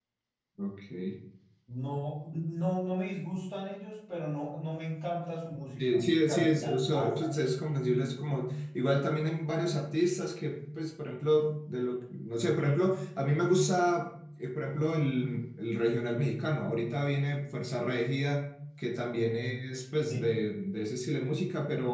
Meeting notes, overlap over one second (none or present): present